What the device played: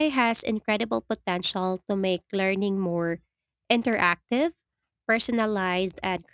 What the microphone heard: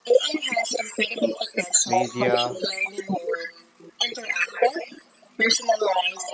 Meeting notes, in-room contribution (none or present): present